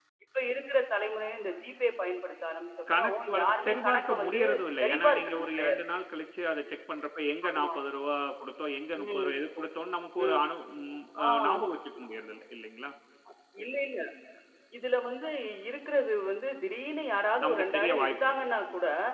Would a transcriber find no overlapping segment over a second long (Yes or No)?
No